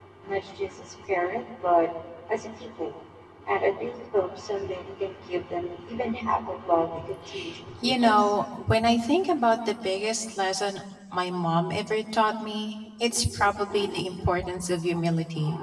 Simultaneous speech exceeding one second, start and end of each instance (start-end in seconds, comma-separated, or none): none